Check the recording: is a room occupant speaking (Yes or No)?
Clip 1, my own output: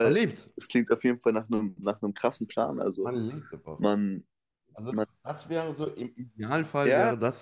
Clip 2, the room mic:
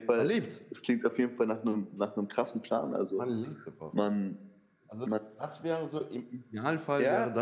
No